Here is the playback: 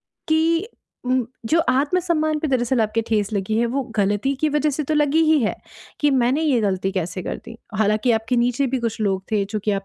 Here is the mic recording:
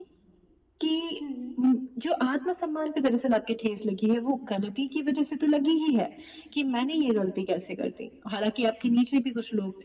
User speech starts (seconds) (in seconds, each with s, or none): 1.2 s